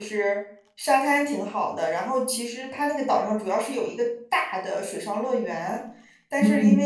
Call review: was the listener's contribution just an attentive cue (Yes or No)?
Yes